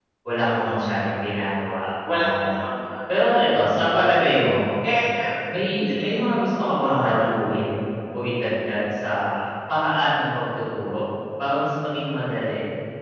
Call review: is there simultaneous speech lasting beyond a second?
No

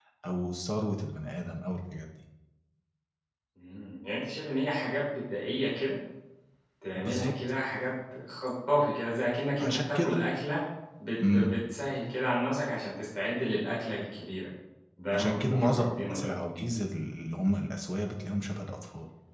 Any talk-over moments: Yes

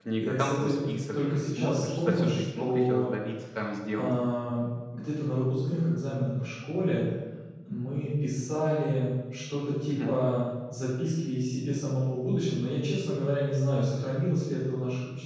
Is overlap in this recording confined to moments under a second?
No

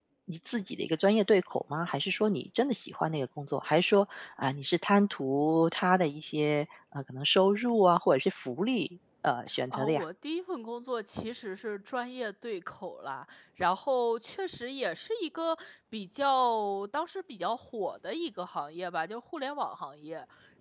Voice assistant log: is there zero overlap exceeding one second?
Yes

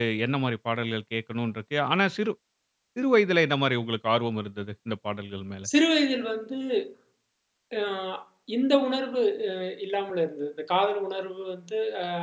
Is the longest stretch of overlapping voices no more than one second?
Yes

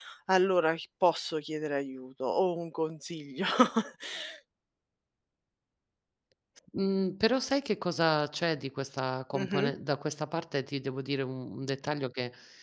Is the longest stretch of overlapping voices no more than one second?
Yes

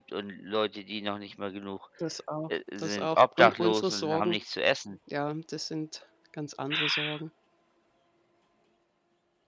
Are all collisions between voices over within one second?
No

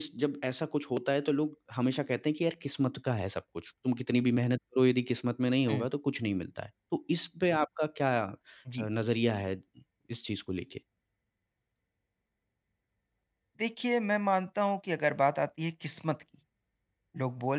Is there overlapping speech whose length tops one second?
No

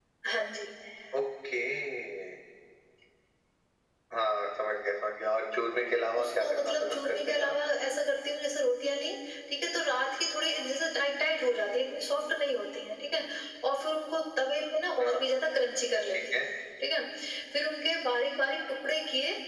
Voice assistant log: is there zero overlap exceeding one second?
No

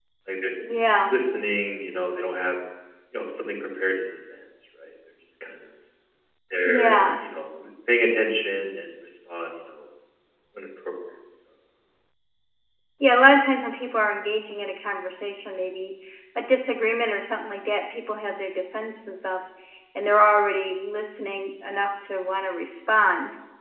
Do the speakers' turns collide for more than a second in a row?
No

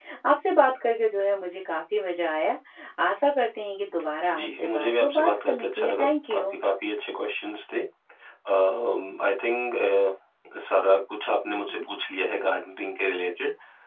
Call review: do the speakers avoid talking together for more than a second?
No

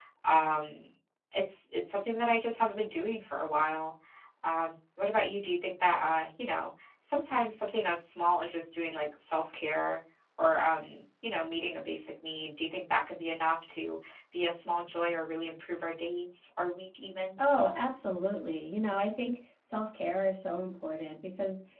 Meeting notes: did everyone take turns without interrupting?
Yes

